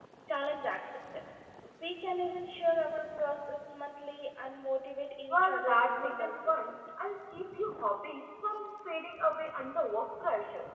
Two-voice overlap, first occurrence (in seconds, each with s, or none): 5.3 s